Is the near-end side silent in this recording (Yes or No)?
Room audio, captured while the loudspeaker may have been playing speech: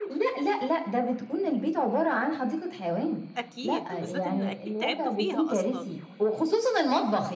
No